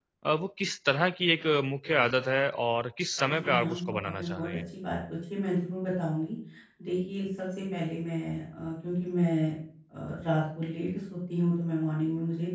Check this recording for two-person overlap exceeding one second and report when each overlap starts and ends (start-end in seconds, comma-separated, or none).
3.3-4.6